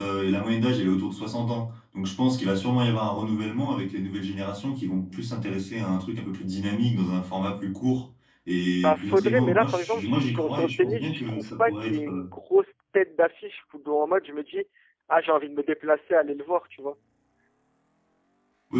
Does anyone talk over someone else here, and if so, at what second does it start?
8.8 s

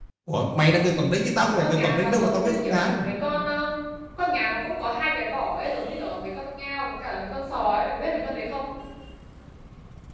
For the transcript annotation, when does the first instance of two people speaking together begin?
1.4 s

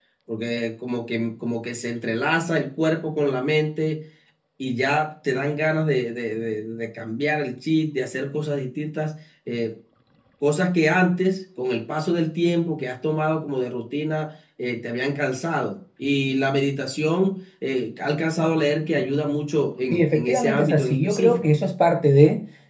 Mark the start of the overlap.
19.9 s

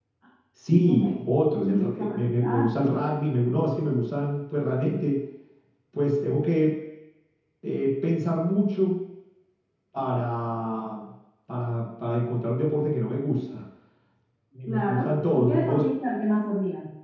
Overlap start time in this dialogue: 0.9 s

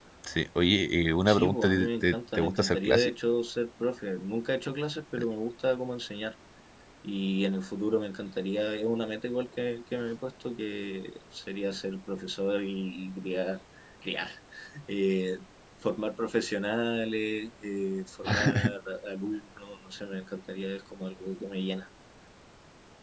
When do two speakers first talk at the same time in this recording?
1.2 s

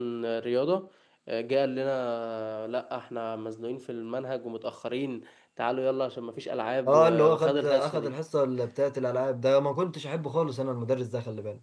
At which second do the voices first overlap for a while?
6.8 s

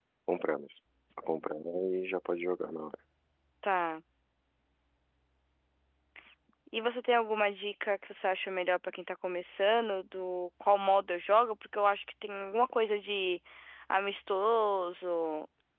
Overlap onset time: none

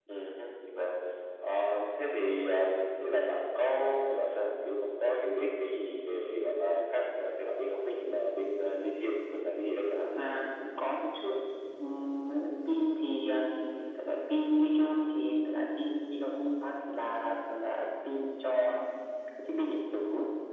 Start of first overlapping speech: none

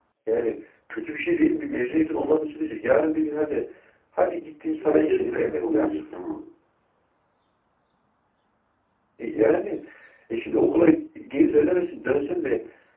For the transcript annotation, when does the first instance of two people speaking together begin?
4.7 s

